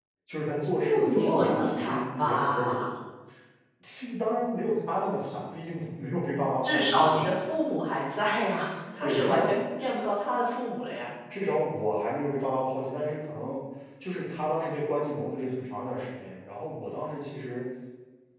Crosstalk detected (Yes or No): Yes